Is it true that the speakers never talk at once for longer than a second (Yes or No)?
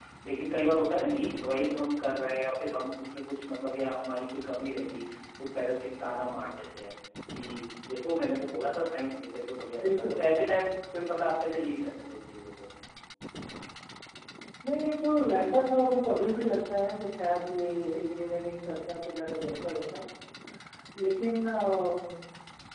Yes